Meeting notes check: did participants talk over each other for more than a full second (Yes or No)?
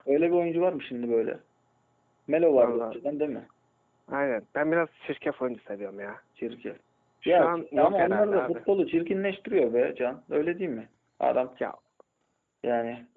Yes